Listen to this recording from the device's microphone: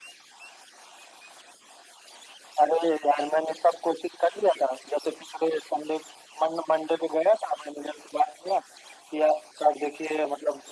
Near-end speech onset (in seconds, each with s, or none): none